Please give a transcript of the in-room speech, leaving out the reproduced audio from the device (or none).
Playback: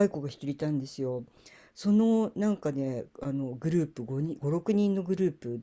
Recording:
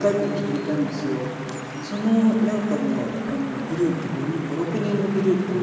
none